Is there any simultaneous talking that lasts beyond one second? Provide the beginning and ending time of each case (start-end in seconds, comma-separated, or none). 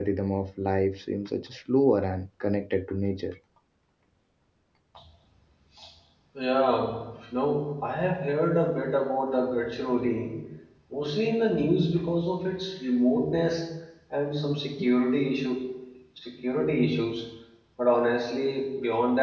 none